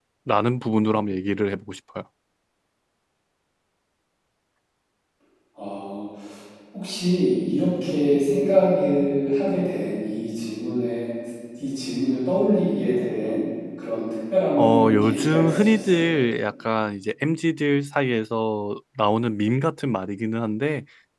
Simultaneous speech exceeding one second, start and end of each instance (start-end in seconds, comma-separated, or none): 14.6-16.0